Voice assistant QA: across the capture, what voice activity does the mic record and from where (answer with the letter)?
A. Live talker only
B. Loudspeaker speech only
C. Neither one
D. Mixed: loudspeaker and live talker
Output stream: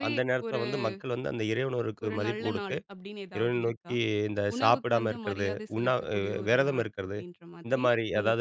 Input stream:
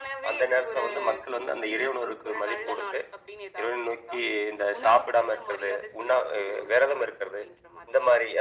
B